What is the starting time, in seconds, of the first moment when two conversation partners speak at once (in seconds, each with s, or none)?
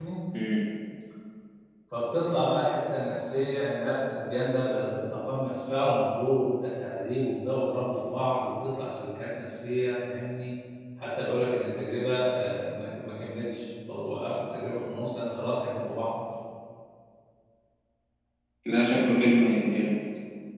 none